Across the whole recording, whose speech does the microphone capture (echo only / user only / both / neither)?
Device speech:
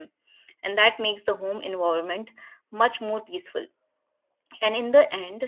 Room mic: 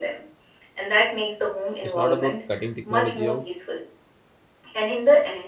both